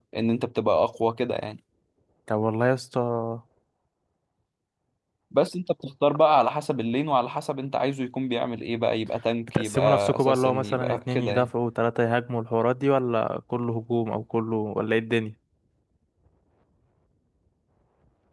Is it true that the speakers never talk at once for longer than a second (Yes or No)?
No